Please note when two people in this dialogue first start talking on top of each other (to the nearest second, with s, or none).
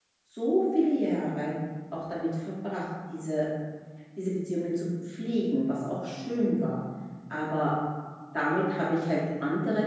none